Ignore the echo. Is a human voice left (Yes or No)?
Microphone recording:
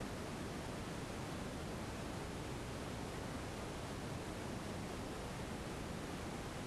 No